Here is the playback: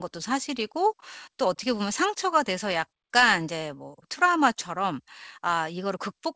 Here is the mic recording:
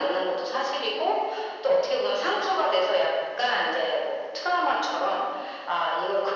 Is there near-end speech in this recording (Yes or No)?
No